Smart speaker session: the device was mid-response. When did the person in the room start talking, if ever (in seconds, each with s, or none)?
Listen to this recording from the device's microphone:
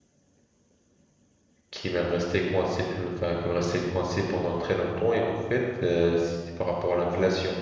1.7 s